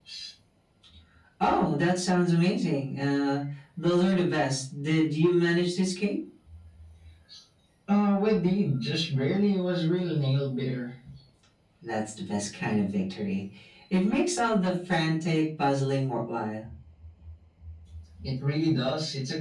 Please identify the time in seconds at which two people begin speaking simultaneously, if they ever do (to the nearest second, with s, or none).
none